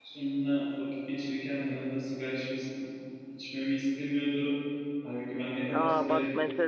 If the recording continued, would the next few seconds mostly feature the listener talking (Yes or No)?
Yes